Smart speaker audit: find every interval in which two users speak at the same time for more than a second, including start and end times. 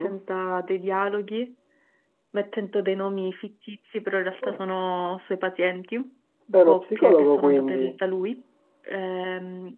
6.7-7.9

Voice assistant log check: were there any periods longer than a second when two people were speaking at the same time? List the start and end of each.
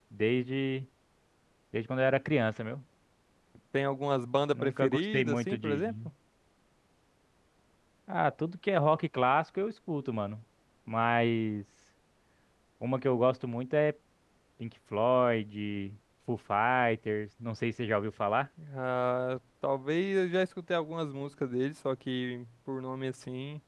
4.5-5.9

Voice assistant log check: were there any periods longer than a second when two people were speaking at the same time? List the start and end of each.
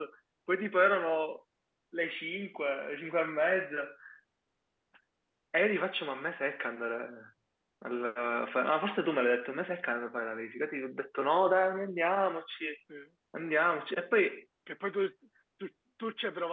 none

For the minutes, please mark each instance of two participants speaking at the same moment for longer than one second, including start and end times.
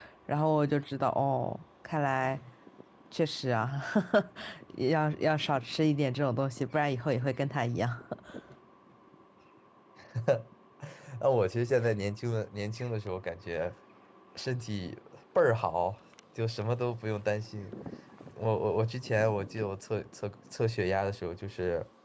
none

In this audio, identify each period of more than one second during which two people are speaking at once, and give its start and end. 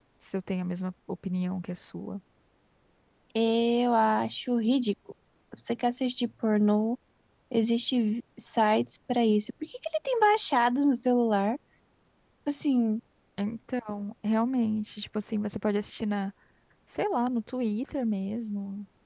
none

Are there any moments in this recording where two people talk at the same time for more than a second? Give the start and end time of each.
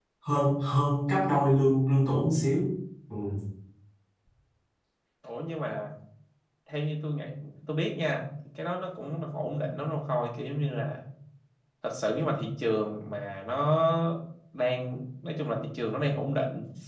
none

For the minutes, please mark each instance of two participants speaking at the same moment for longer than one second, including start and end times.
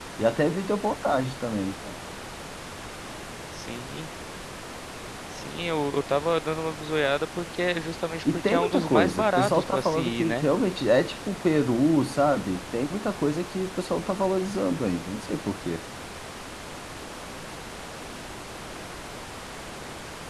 8.3-10.5

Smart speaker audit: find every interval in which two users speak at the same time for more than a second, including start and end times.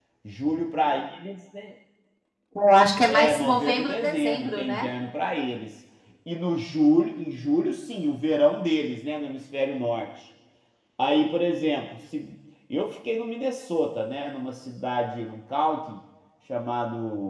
3.1-4.9

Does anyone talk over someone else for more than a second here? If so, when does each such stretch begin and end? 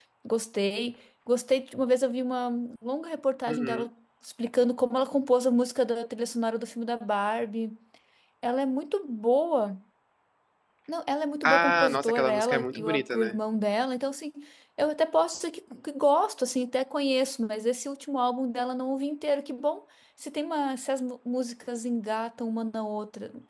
11.4-13.4

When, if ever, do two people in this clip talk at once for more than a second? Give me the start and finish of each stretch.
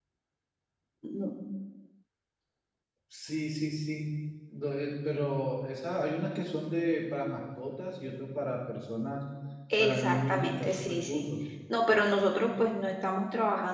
9.8-11.2

